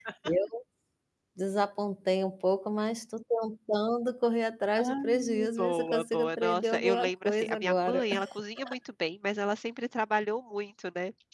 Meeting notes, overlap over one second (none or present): present